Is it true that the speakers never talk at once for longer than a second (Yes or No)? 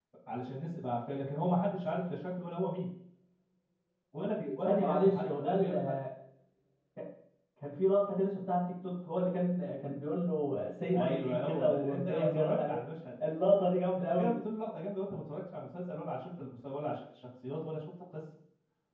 No